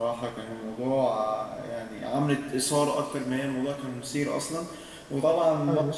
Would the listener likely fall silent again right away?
Yes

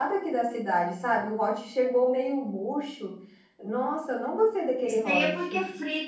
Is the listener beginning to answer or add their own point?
Yes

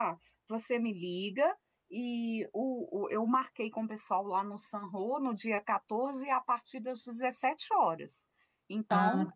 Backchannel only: Yes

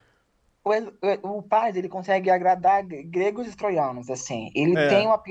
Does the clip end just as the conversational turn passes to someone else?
No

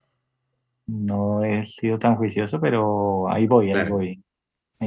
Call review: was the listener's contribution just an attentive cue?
Yes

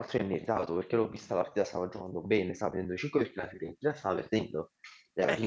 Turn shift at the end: No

